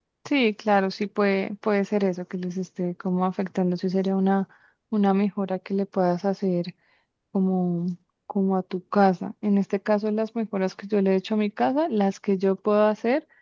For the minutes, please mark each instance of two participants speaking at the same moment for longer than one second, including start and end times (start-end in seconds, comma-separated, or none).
none